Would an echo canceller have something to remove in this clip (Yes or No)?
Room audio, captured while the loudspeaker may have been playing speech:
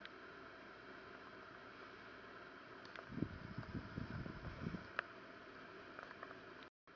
No